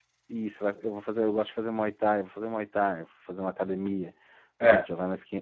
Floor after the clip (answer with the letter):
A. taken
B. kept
B